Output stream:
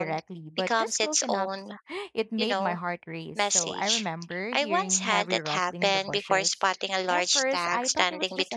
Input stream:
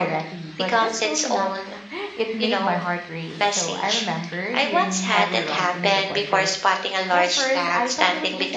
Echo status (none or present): present